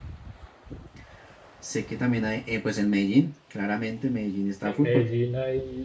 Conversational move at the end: taking over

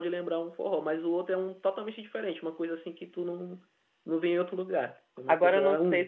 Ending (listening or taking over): taking over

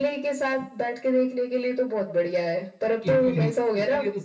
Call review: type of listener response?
taking over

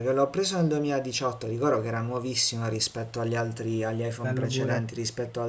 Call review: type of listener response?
listening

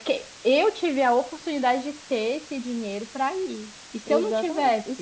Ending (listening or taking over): taking over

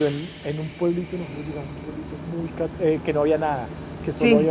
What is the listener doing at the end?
listening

